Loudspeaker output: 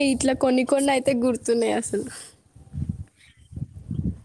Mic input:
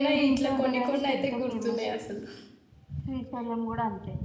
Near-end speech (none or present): present